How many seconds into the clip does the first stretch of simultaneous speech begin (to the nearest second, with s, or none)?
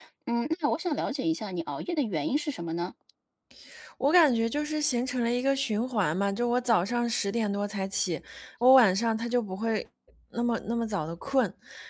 none